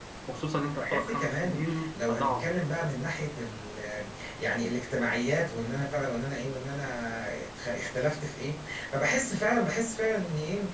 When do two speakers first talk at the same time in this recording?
0.8 s

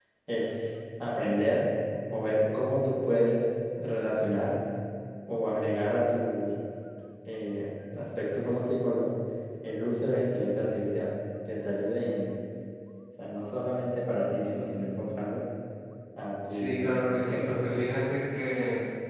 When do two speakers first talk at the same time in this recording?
16.5 s

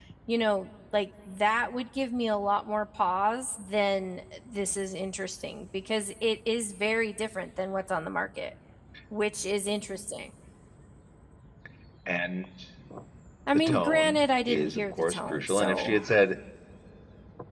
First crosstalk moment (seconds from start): 13.5 s

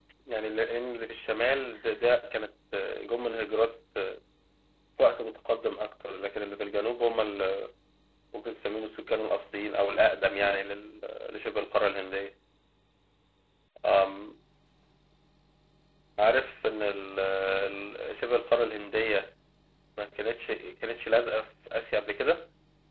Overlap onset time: none

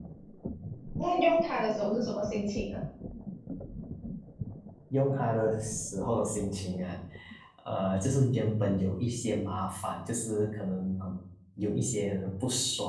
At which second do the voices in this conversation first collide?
none

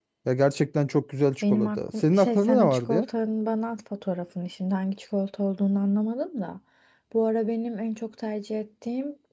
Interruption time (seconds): 1.4 s

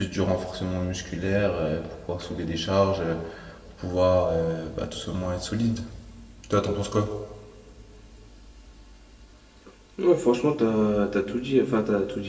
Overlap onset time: none

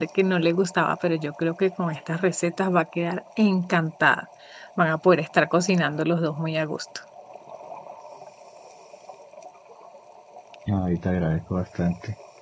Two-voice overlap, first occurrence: none

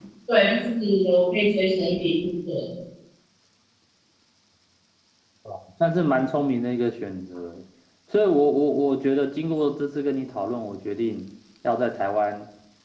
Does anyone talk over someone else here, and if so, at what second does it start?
none

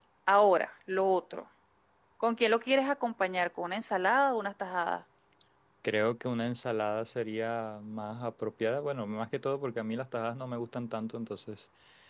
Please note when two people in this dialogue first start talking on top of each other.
none

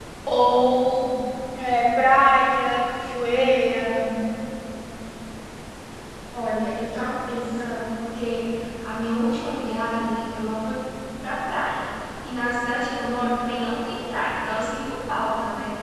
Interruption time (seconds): none

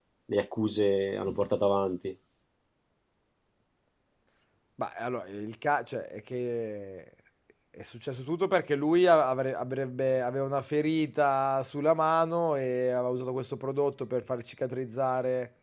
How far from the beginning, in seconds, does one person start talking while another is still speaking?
none

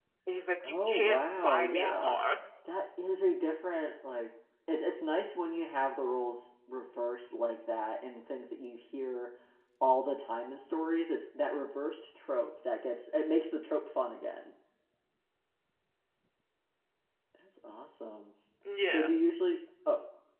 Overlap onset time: 0.6 s

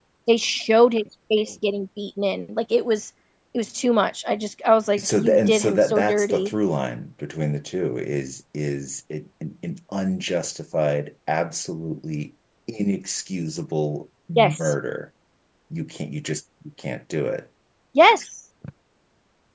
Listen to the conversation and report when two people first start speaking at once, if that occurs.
5.0 s

